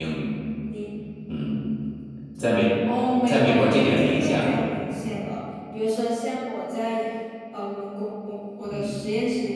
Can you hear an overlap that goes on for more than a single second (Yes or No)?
Yes